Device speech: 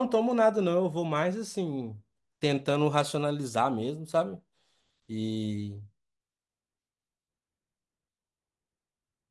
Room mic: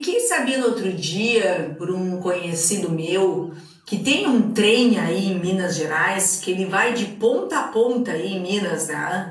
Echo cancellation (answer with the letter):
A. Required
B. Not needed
B